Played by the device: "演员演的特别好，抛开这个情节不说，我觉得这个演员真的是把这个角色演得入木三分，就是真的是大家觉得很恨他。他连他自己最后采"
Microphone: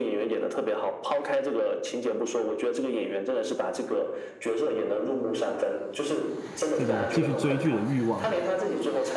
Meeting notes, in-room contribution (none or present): present